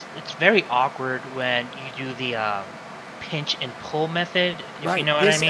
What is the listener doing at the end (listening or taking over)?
taking over